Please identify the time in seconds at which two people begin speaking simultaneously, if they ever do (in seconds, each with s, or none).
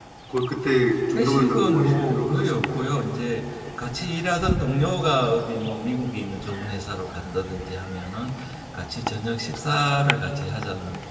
1.2 s